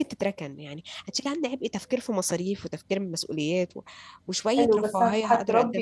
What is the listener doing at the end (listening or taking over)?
taking over